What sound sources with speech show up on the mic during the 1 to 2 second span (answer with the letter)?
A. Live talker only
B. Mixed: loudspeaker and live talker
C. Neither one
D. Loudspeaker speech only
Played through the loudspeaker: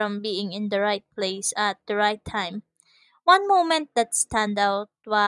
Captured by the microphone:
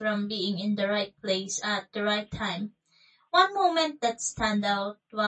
D